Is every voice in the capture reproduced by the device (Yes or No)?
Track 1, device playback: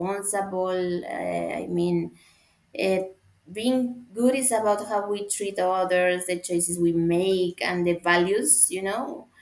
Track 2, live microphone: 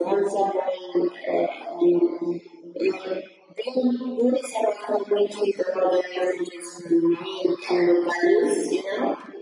Yes